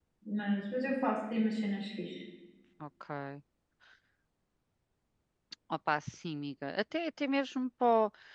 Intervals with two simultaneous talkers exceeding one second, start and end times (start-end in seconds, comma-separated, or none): none